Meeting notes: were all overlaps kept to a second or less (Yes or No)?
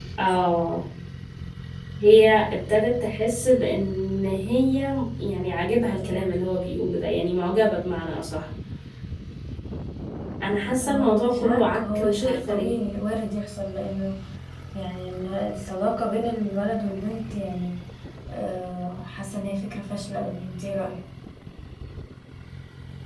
No